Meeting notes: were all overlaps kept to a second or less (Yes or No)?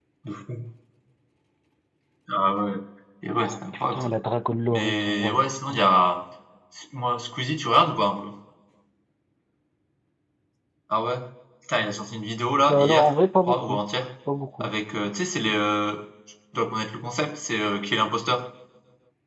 No